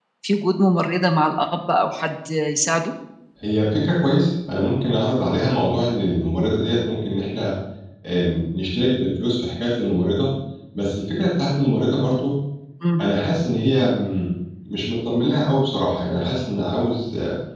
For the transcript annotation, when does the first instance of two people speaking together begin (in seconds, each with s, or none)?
none